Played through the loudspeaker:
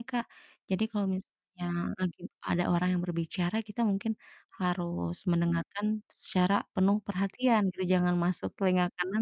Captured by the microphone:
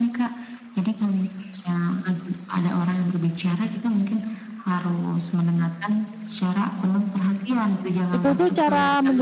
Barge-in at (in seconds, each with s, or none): 8.1 s